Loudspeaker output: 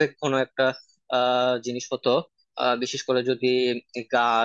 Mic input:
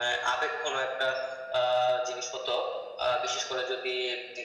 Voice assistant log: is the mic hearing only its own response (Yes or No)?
Yes